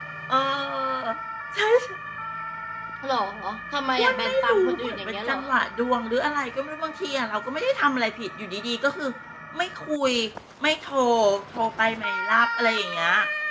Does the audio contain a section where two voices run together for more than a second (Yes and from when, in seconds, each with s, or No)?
Yes, from 4.0 s